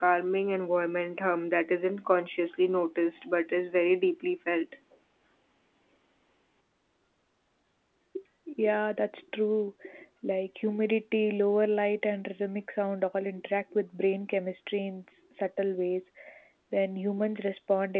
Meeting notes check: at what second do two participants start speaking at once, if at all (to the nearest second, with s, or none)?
none